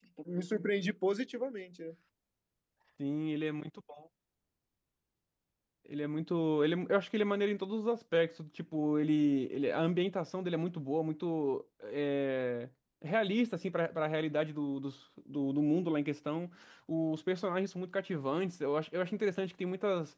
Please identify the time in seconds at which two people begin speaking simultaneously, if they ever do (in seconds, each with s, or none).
none